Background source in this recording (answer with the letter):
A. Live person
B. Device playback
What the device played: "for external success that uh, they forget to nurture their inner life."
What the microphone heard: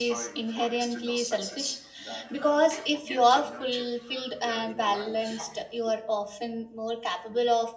B